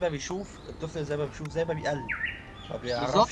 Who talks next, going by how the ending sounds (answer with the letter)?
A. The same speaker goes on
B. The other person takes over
B